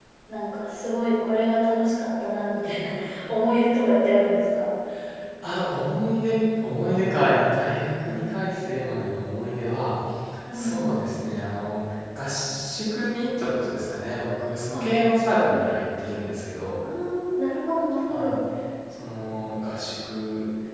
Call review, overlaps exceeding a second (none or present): none